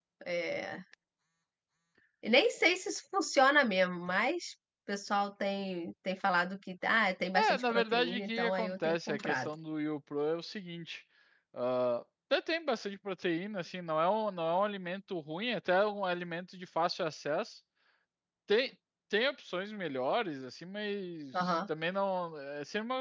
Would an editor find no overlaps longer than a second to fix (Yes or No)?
No